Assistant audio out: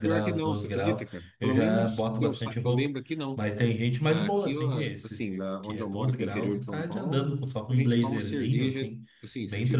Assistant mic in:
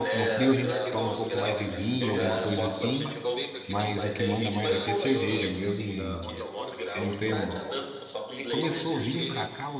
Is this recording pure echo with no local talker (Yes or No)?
No